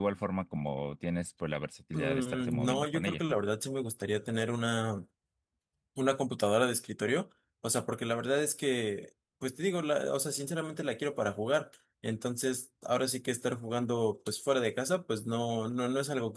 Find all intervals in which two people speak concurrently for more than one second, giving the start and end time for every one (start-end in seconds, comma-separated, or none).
1.9-3.2